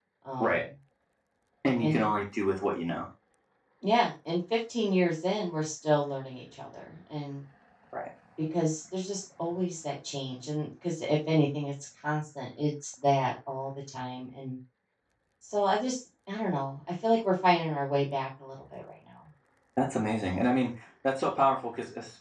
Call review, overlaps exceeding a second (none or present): none